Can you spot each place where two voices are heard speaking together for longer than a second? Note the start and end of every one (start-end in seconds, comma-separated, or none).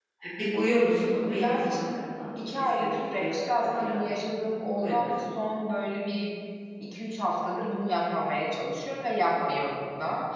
2.6-4.0